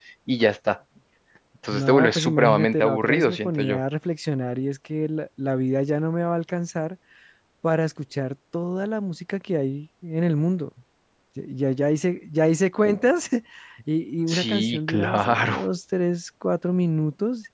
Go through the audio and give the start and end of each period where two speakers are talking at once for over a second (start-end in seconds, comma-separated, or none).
1.7-3.8, 14.3-15.6